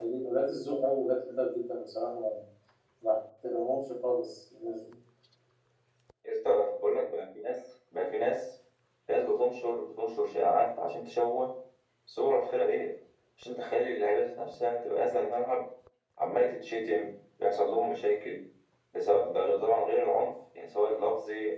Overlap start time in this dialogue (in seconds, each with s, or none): none